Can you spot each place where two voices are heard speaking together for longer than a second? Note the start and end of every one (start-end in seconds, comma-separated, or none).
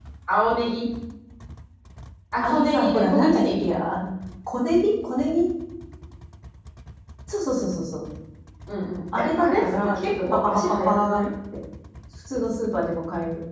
2.4-3.7, 9.4-11.2